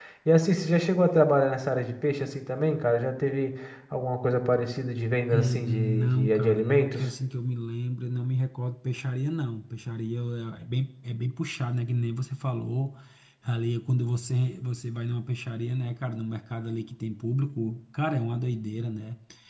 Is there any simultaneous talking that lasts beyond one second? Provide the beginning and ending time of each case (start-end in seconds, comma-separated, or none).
5.3-7.1